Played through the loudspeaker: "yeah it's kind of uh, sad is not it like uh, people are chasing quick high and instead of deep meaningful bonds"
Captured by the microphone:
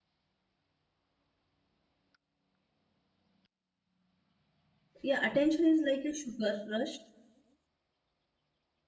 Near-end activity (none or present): present